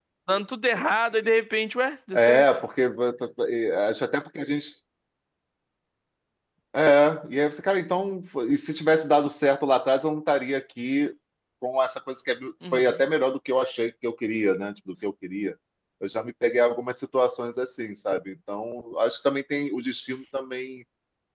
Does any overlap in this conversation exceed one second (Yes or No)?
No